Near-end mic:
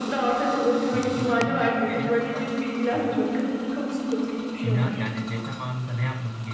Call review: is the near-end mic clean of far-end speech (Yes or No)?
No